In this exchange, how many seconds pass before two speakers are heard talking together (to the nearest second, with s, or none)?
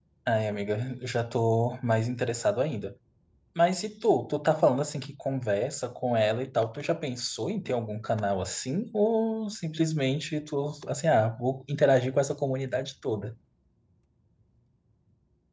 none